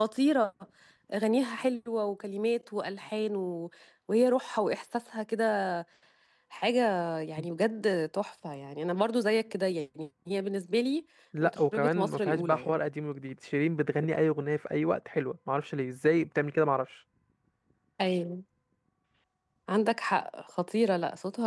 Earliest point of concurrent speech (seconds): 11.4 s

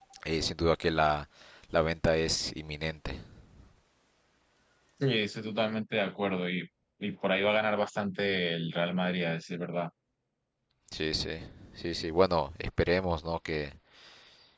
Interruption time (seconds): none

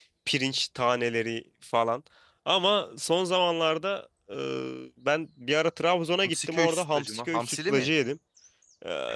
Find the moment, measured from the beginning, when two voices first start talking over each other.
6.2 s

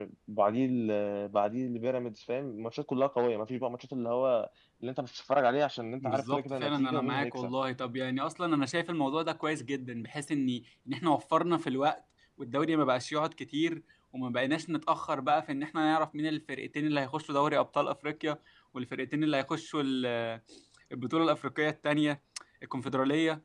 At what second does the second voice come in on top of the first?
6.0 s

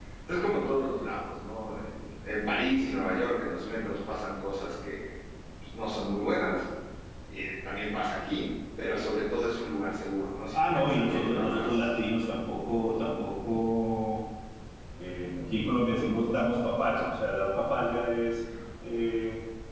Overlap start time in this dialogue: 10.5 s

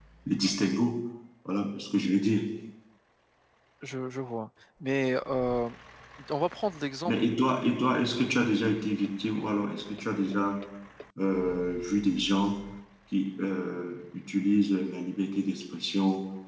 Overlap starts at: none

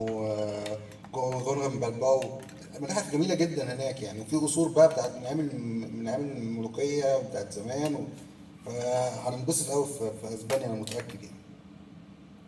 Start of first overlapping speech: none

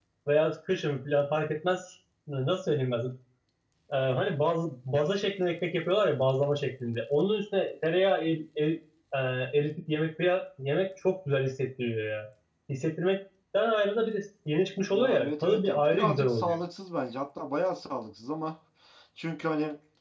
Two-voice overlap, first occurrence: 14.9 s

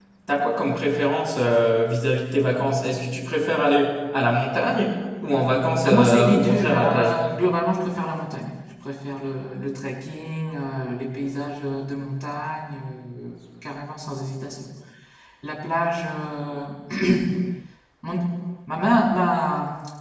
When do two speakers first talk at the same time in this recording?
5.8 s

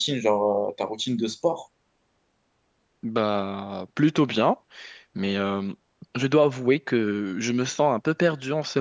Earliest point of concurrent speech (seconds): none

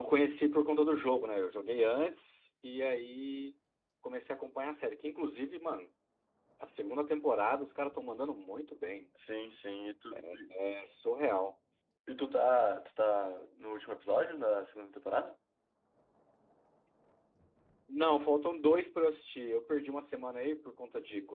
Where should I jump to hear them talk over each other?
none

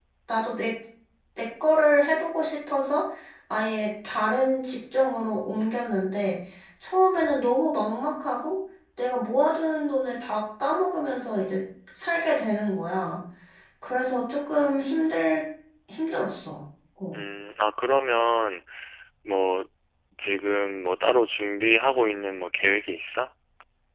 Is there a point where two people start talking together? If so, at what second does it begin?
none

